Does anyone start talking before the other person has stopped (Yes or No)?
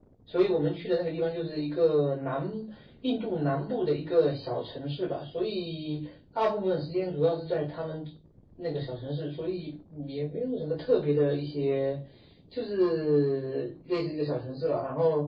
No